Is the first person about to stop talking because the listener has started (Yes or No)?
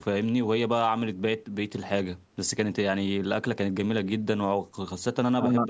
No